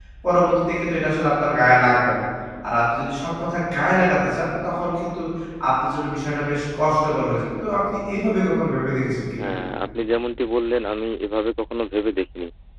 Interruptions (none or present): none